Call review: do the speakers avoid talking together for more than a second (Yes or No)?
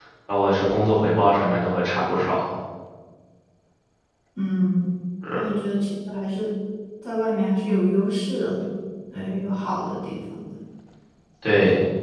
Yes